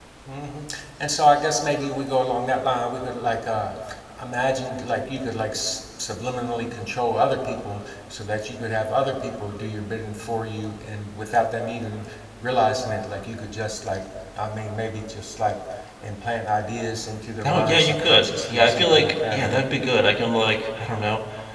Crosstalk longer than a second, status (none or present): present